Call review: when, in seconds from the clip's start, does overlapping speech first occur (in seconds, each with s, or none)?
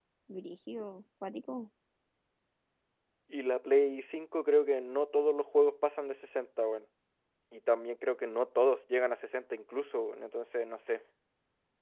none